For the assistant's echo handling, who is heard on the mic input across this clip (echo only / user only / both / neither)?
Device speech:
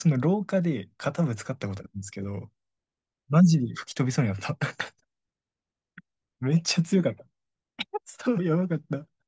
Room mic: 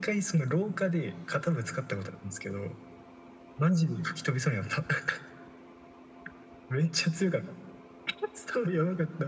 echo only